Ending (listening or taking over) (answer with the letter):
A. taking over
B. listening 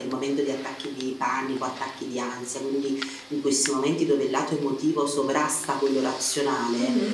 B